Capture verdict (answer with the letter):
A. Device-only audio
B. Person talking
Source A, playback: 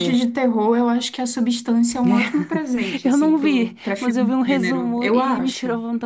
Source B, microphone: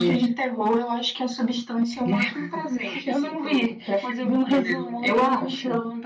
A